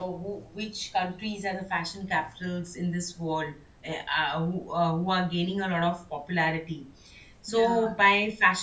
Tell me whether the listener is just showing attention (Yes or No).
Yes